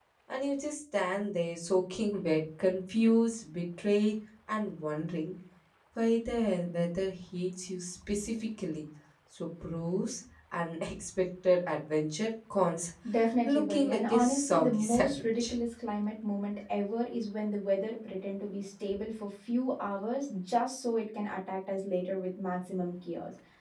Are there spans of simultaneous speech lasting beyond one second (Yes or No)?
Yes